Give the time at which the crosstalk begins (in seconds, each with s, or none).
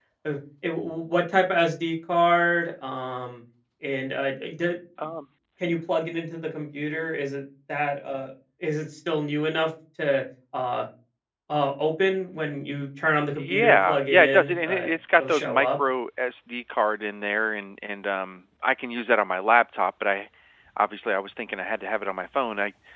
13.4 s